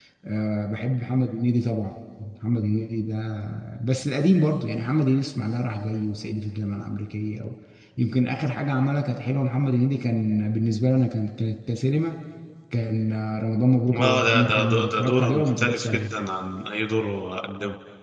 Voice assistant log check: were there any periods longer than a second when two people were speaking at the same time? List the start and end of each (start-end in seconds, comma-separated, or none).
13.9-16.1